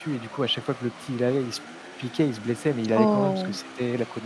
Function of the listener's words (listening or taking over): listening